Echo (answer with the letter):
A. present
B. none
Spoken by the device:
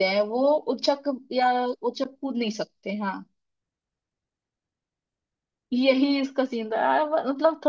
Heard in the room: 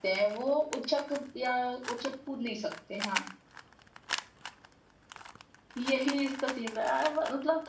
A